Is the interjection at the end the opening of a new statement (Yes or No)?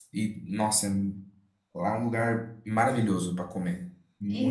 Yes